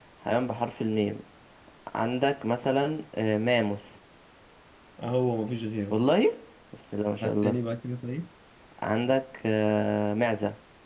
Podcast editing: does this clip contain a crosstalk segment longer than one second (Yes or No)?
No